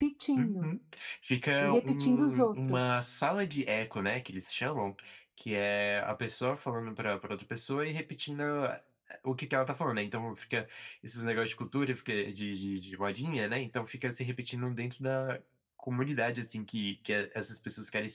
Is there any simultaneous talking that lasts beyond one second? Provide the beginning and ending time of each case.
1.6-2.9

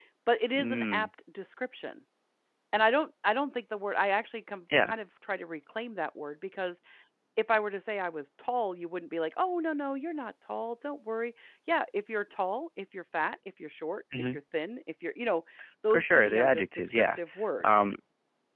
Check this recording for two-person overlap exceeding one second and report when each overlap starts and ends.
15.9-17.2

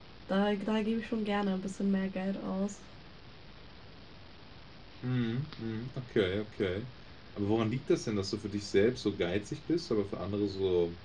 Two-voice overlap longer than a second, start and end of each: none

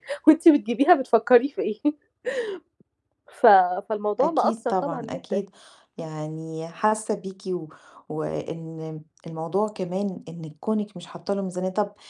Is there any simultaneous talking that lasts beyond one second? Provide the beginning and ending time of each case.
4.2-5.4

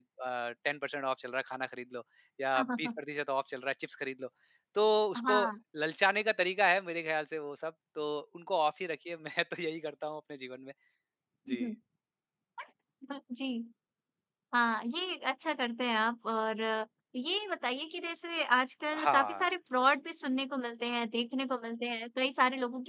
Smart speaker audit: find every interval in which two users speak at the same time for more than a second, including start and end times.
none

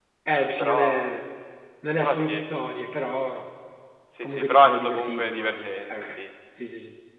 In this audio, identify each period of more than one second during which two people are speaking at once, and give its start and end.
4.2-6.2

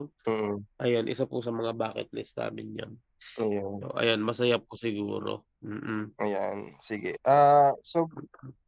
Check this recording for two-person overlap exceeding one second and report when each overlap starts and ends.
none

